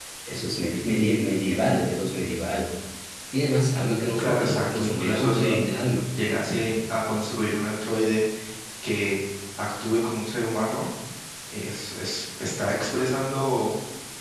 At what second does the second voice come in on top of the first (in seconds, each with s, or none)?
4.2 s